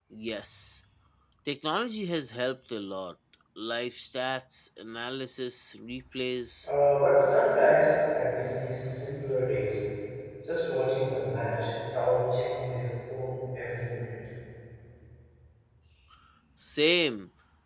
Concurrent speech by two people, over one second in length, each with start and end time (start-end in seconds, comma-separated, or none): none